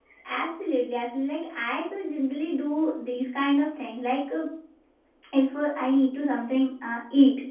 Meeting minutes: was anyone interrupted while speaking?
No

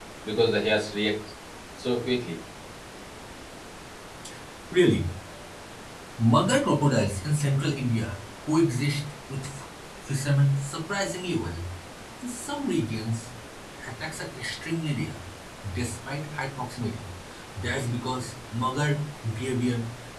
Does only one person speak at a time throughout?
Yes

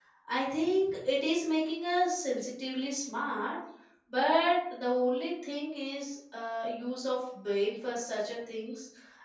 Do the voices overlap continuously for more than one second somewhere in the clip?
No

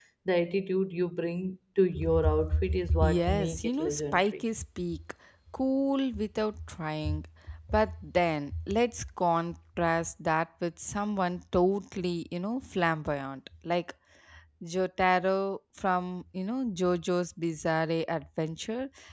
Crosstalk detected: Yes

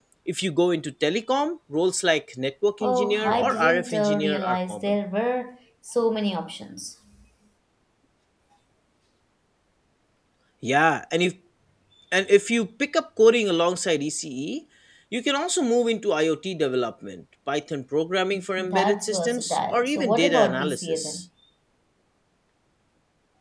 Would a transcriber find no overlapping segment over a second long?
No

